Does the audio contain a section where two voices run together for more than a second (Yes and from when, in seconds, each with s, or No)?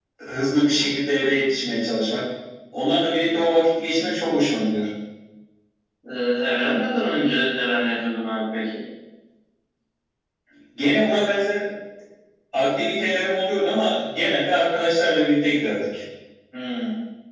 No